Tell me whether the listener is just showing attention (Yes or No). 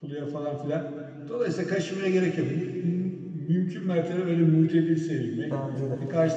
Yes